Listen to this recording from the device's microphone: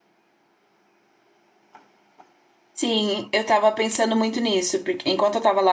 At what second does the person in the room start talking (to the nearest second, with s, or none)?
3 s